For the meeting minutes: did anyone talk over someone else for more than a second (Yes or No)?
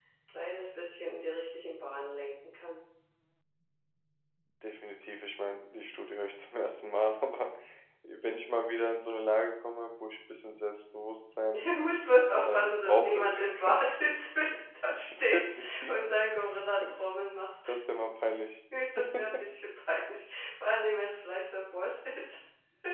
Yes